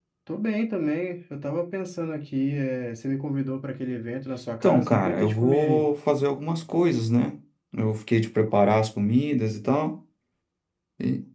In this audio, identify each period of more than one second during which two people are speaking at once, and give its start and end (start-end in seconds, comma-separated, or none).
4.6-5.8